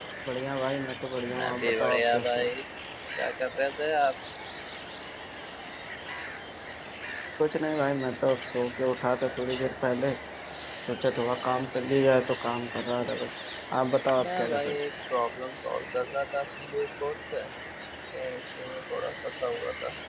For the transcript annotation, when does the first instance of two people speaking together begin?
1.3 s

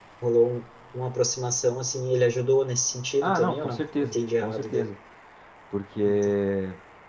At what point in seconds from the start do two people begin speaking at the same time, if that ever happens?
3.2 s

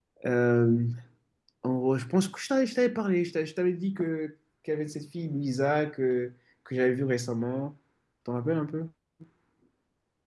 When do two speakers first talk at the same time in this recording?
none

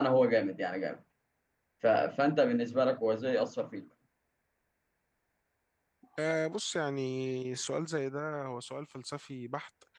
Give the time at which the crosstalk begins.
none

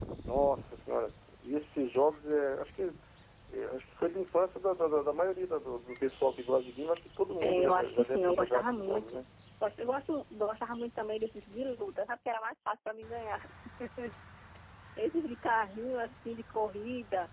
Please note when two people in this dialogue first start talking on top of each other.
7.4 s

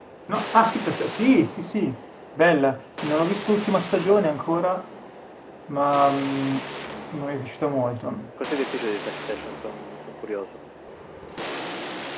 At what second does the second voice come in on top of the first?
none

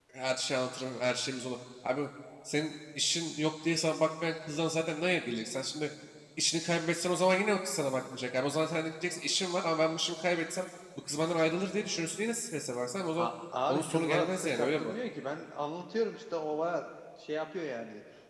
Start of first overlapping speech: 13.7 s

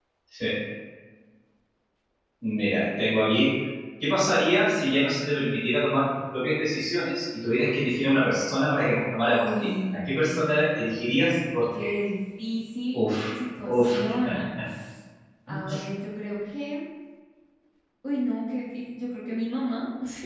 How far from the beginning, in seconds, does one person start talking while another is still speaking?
9.2 s

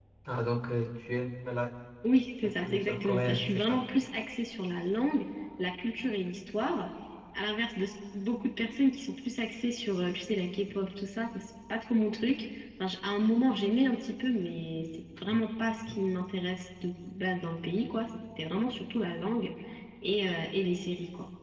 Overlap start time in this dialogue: 2.6 s

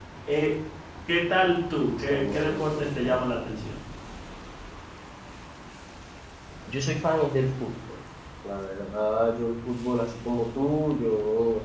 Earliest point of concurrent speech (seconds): 2.0 s

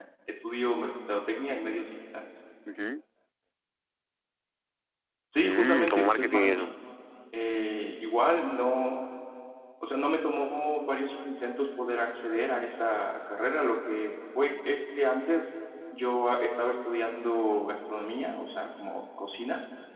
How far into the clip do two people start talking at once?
5.4 s

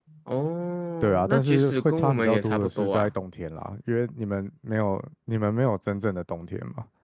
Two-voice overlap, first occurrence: 1.0 s

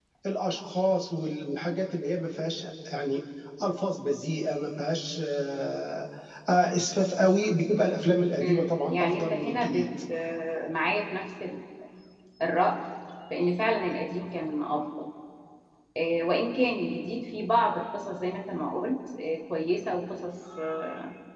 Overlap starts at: 8.4 s

